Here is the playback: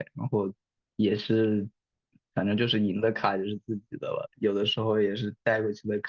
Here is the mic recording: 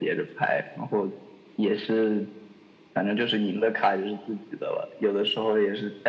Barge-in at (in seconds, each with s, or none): none